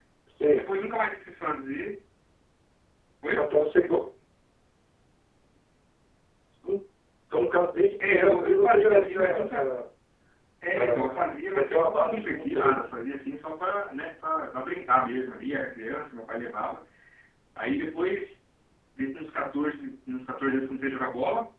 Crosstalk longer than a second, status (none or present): present